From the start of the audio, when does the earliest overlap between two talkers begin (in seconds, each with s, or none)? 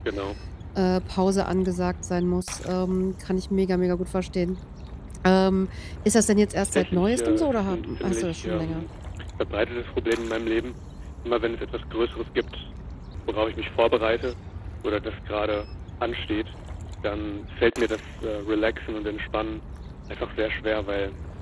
6.7 s